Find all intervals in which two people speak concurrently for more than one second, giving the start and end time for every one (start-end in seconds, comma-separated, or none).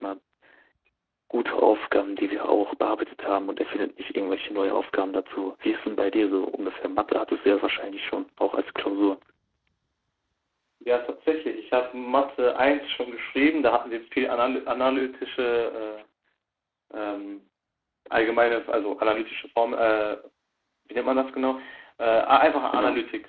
none